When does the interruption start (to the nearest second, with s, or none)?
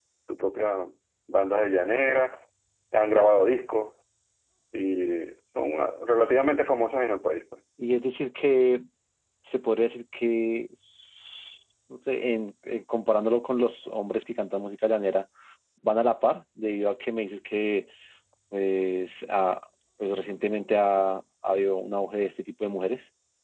none